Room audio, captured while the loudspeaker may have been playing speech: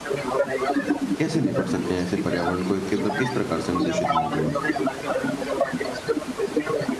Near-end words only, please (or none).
कैसे निपट सकते हैं ऐसे पर्यावरण को कि मतलब किस प्रकार से हम दूषित ना करें?